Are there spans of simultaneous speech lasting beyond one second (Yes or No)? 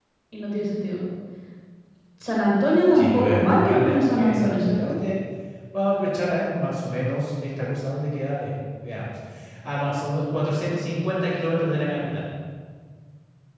Yes